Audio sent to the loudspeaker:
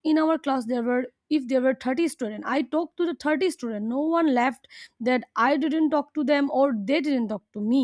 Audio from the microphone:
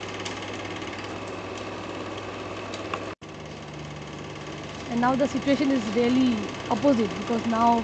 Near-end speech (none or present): present